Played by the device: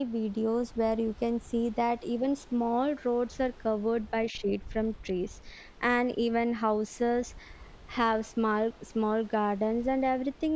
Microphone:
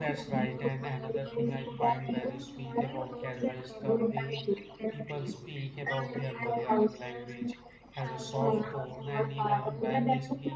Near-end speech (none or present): present